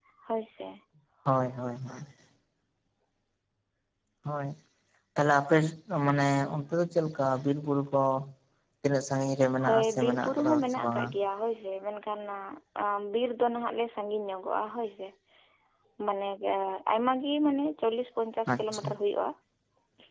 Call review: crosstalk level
present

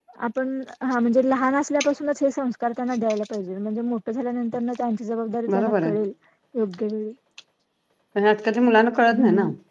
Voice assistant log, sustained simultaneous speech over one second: none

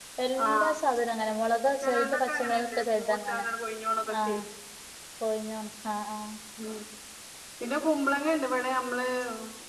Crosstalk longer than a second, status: present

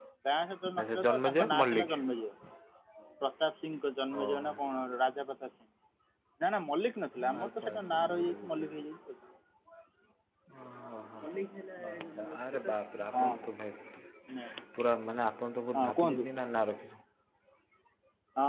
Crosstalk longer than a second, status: present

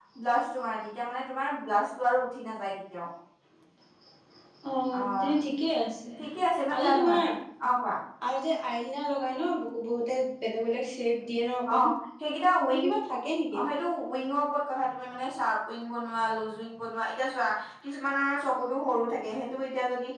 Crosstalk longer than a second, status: none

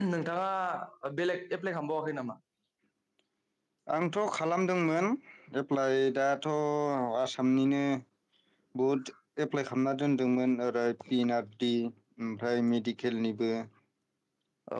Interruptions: none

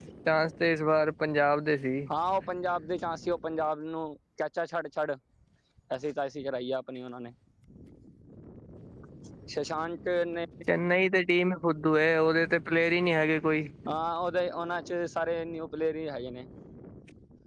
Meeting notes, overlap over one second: none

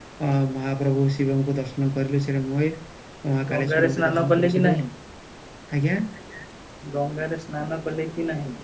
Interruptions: present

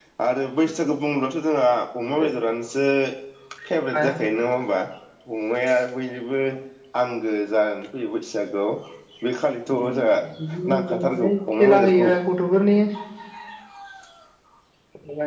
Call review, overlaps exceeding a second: present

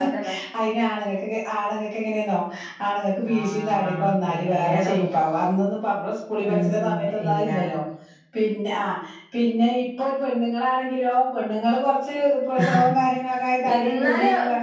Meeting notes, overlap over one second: present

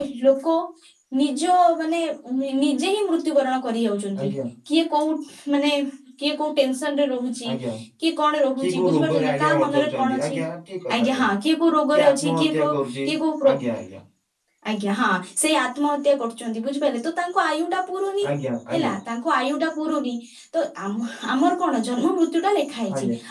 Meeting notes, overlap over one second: present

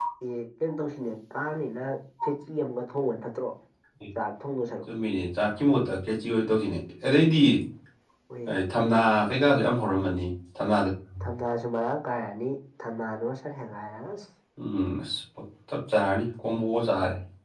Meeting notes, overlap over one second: none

